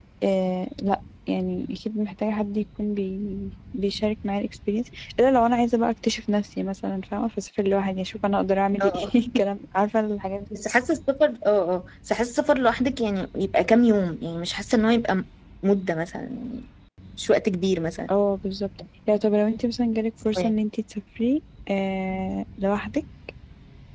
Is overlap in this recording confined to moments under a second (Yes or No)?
Yes